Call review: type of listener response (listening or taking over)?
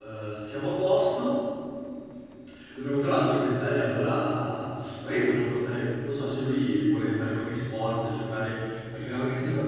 taking over